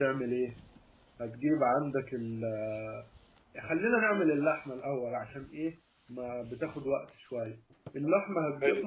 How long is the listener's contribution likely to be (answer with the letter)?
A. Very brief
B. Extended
A